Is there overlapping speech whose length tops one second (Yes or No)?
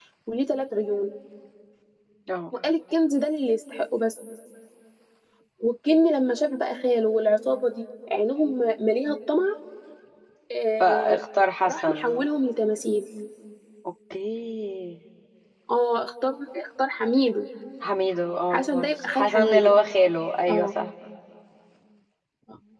Yes